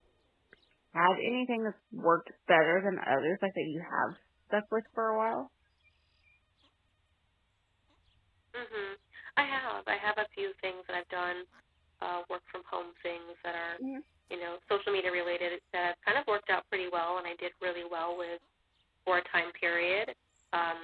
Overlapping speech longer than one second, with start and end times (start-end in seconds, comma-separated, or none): none